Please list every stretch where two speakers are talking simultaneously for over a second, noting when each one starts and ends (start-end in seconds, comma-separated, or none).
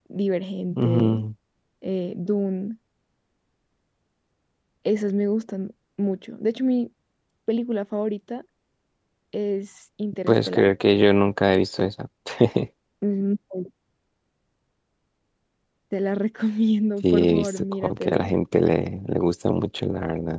17.0-18.3